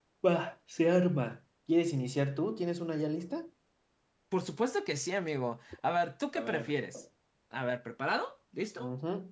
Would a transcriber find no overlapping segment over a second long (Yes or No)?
Yes